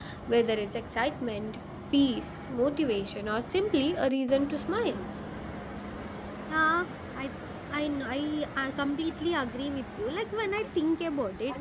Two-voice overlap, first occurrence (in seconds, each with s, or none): none